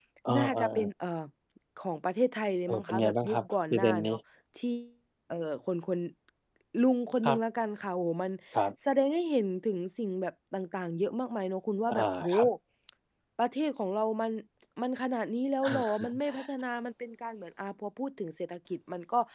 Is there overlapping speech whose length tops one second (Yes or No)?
Yes